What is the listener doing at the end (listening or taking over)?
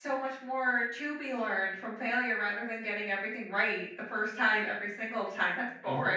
taking over